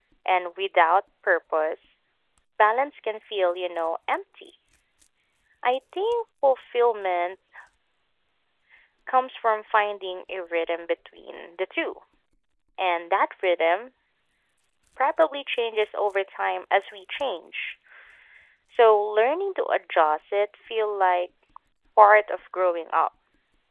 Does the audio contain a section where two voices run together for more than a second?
No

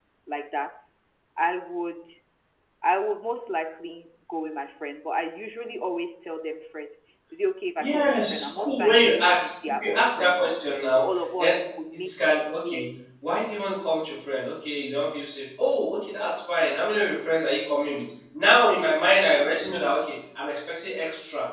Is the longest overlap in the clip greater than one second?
Yes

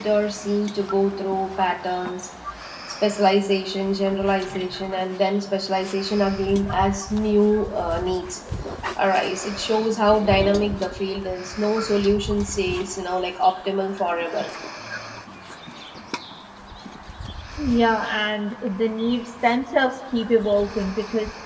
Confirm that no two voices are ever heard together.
Yes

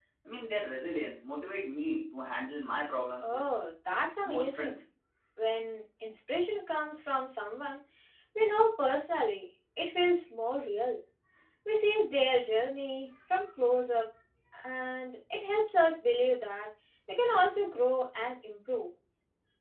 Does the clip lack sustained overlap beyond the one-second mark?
Yes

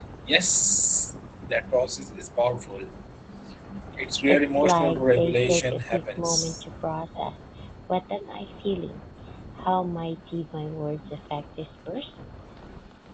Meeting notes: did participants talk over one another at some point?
Yes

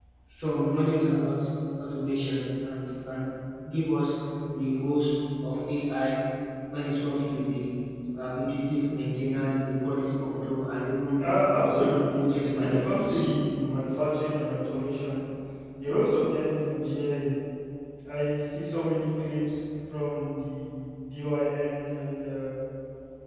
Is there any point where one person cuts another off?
Yes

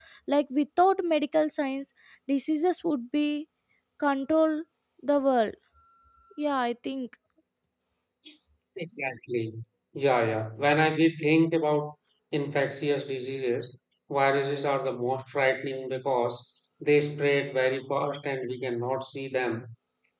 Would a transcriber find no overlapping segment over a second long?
Yes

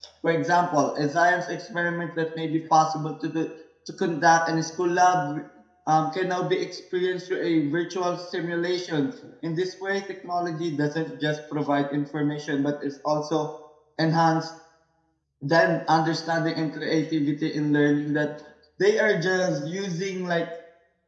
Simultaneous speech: No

